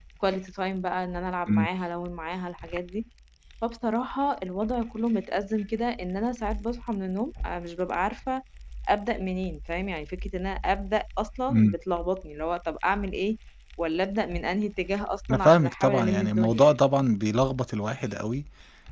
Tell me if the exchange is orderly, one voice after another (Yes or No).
No